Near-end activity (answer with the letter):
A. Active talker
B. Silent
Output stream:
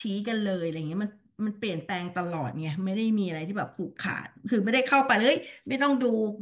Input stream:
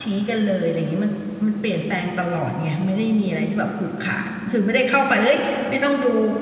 B